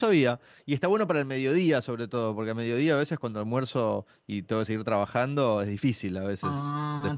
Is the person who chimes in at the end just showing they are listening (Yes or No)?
No